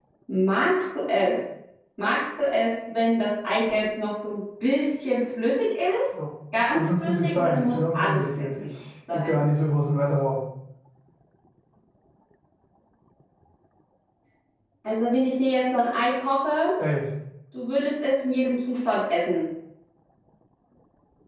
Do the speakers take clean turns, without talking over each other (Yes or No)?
No